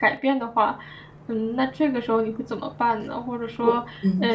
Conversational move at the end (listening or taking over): listening